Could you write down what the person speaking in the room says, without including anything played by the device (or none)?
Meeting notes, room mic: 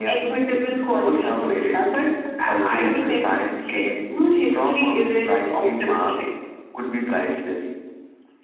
cooperation?